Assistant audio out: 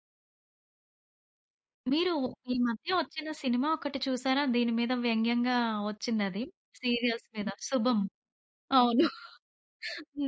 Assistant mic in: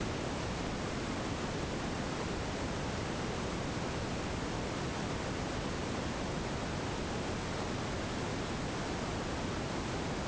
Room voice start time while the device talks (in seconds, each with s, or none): none